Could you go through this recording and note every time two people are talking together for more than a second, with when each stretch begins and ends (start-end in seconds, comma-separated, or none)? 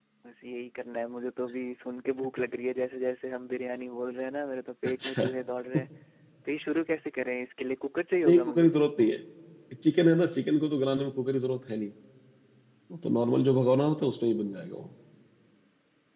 none